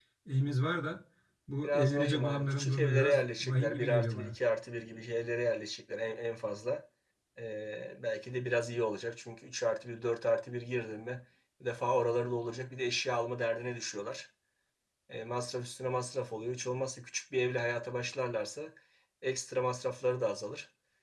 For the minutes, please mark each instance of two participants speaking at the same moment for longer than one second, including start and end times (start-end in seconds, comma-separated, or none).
1.6-4.3